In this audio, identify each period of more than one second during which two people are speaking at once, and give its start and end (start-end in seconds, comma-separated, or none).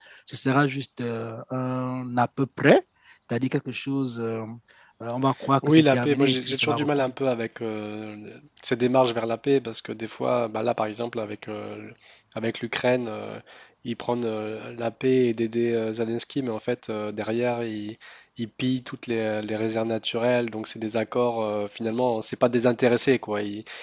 5.7-7.1